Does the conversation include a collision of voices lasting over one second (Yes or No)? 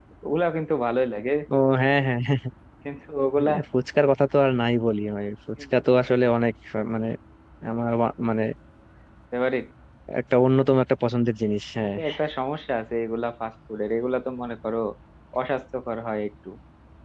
No